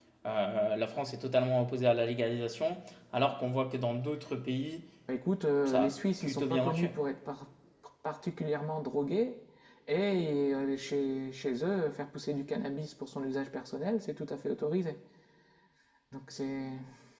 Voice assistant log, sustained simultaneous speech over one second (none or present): present